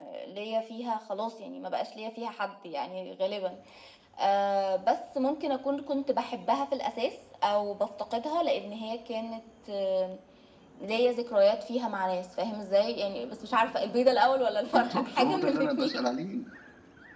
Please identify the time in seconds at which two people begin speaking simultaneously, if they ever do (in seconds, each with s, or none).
14.6 s